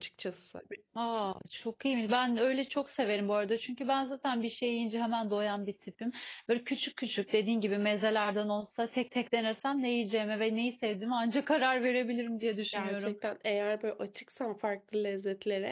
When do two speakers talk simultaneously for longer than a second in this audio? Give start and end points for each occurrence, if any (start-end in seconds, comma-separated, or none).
none